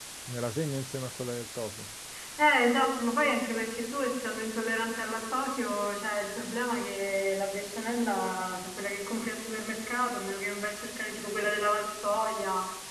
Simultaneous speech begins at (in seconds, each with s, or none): none